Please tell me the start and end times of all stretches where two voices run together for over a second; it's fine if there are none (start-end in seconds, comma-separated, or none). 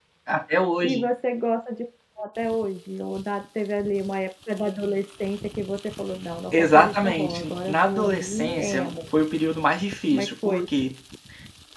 6.5-9.0